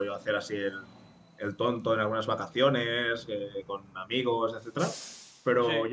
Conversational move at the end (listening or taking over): listening